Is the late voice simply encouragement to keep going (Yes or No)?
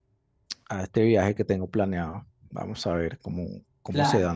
No